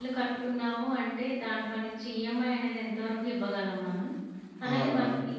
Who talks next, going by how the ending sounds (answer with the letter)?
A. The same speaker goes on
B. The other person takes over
A